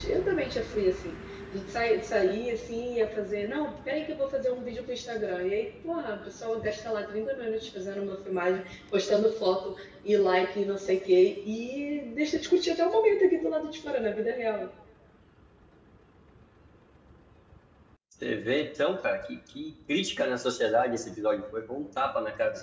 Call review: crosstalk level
none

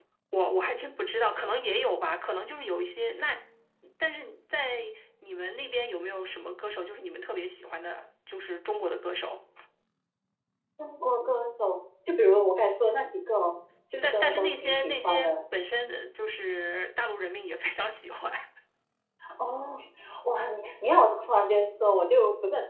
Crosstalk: present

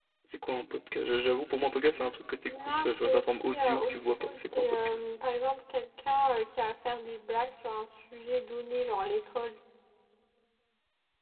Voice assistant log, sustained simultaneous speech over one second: present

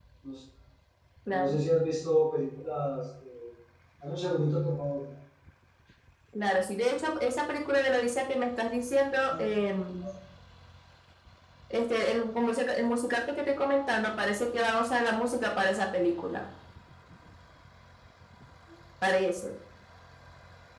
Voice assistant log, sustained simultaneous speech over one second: none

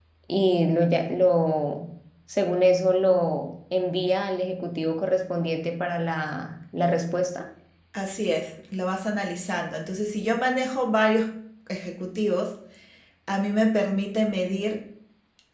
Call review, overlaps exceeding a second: none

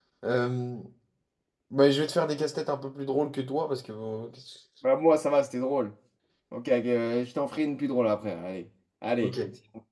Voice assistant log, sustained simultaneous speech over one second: none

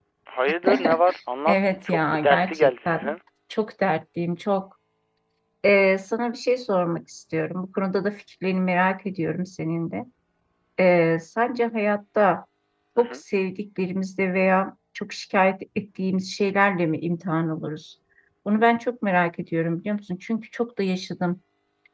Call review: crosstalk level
present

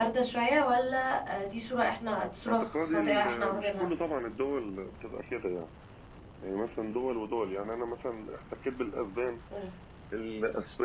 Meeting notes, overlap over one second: present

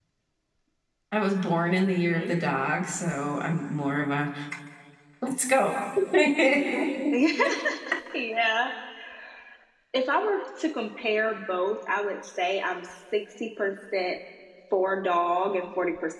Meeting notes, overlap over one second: none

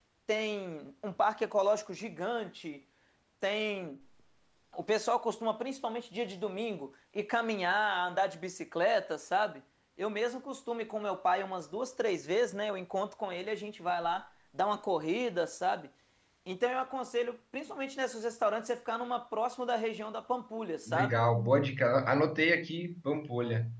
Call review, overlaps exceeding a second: none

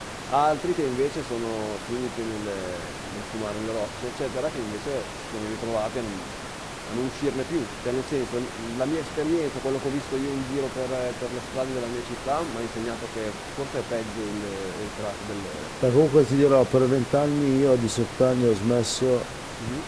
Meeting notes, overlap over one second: none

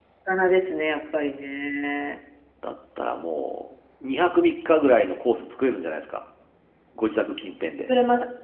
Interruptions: none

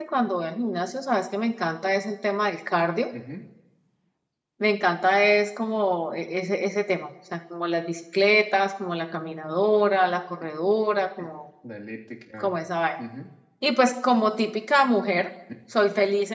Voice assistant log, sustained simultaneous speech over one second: none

